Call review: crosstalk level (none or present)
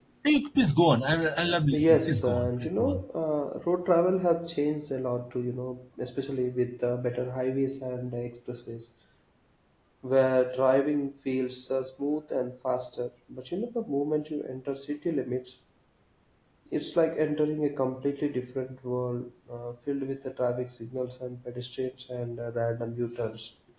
present